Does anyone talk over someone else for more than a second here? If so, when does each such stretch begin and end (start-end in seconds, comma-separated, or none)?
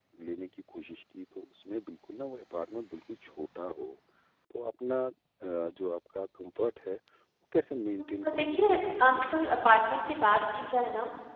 8.2-9.6